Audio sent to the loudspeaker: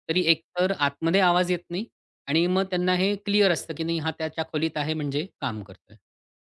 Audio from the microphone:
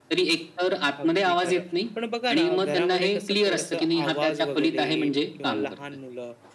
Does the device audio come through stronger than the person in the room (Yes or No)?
Yes